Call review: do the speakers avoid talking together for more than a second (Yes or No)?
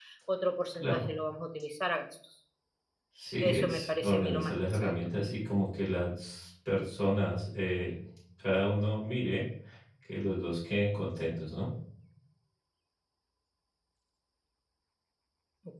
No